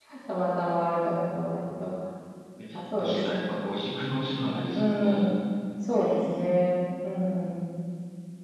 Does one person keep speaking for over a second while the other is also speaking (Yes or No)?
No